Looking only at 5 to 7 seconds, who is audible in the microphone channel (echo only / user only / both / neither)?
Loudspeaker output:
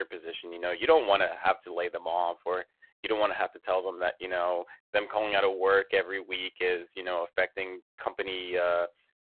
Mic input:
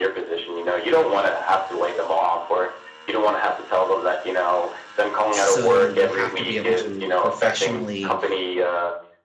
both